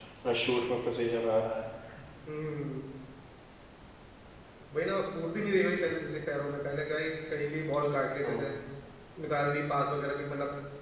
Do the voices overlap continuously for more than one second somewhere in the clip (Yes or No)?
No